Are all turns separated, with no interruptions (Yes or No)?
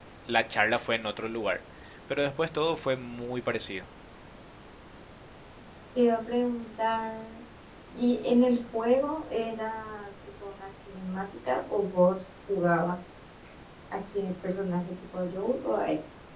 Yes